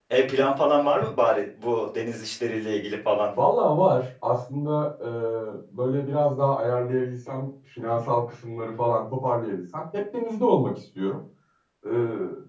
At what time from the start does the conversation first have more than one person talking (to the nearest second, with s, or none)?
none